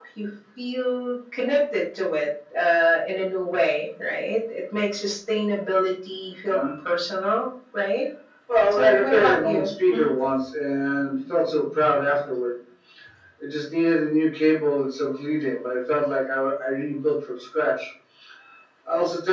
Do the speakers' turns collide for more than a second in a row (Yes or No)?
Yes